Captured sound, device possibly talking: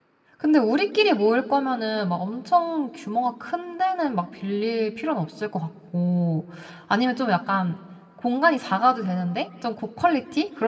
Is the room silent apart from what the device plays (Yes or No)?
No